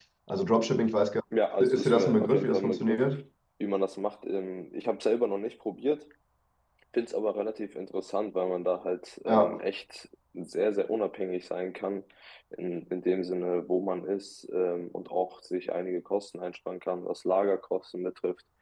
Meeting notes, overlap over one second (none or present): present